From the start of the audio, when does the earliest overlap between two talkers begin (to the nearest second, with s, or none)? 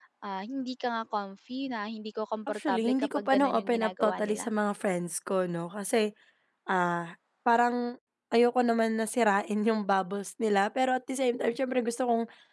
2 s